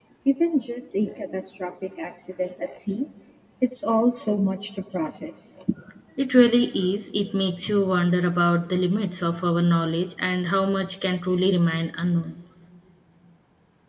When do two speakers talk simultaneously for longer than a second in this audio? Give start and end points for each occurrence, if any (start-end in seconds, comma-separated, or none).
none